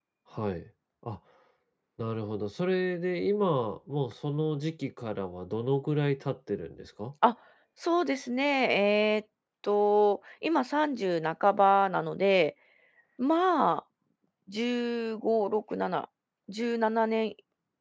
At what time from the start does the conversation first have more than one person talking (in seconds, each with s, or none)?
none